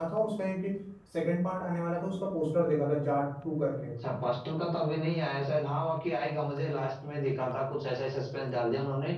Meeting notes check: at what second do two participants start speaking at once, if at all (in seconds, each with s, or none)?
none